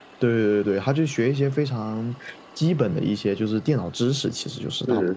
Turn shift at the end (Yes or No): Yes